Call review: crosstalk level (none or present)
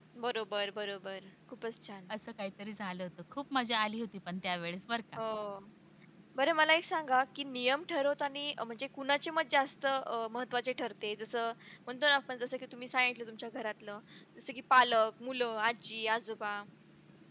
none